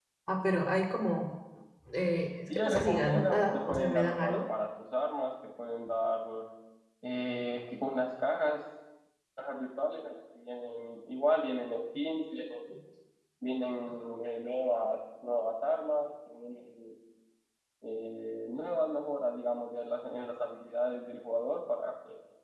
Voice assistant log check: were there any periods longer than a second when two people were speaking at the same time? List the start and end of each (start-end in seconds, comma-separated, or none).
2.5-4.4